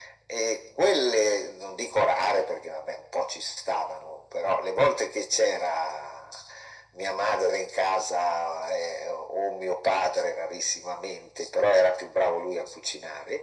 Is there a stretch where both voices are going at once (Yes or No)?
No